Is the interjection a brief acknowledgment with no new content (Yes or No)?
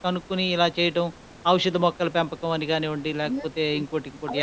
No